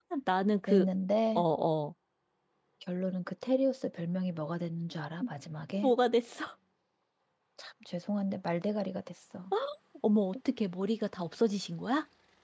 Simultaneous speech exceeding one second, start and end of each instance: none

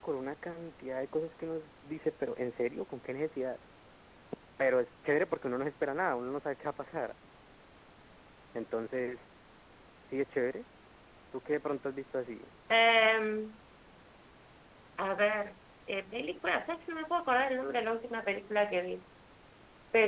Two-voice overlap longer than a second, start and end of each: none

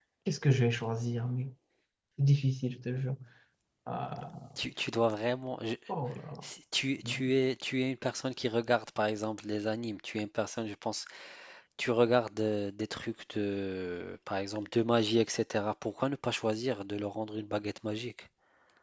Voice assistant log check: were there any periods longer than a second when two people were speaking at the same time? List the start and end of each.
none

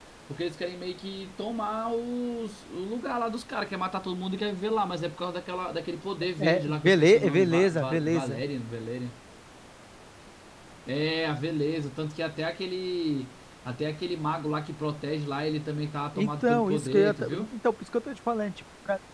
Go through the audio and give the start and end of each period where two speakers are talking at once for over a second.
6.4-8.4, 16.2-17.4

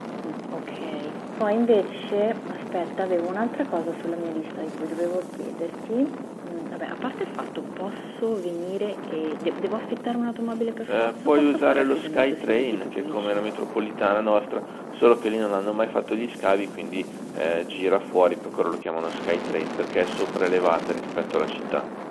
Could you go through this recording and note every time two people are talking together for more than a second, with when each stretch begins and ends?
10.9-13.5

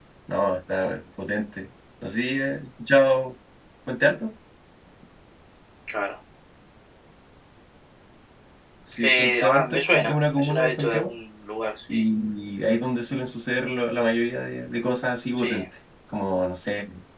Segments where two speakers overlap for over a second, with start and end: 9.0-11.1

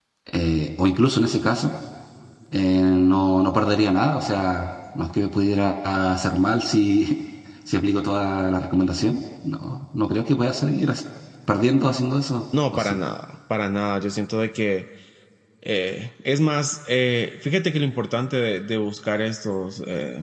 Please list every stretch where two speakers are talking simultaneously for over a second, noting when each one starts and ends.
none

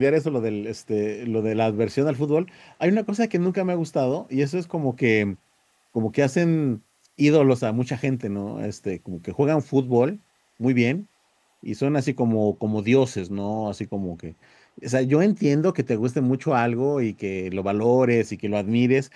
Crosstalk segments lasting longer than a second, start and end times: none

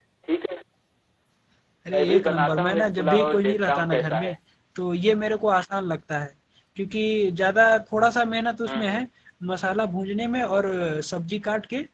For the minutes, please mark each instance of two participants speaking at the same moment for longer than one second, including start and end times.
1.9-4.3

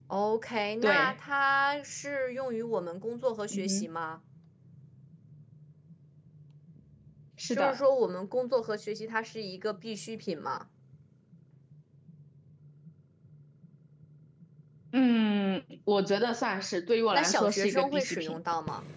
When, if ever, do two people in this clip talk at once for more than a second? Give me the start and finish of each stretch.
17.1-18.4

